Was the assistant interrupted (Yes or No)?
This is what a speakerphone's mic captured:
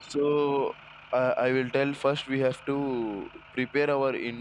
Yes